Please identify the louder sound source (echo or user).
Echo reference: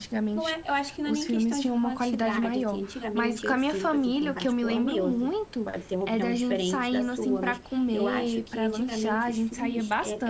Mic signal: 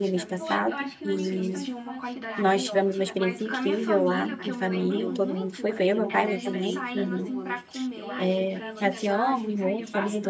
user